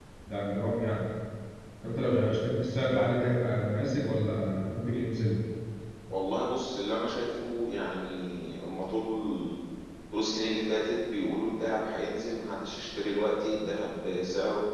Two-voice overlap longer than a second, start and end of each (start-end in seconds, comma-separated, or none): none